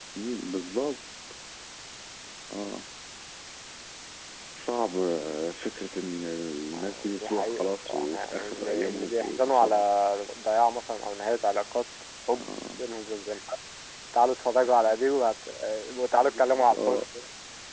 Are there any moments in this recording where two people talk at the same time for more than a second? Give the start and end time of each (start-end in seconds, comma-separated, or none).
6.7-9.8